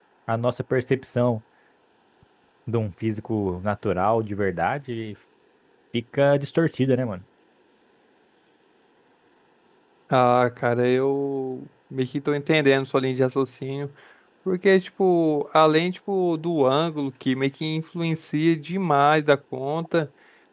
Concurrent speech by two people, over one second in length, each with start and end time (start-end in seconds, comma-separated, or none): none